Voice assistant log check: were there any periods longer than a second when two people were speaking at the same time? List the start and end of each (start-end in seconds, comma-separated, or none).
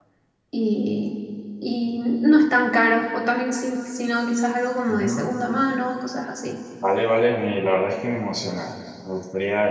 none